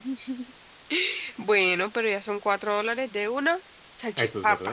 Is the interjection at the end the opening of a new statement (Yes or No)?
Yes